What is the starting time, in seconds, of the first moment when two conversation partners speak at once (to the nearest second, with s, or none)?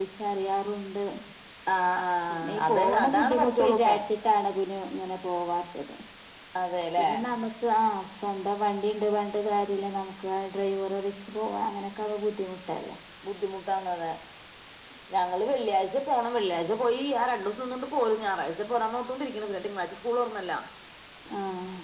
2 s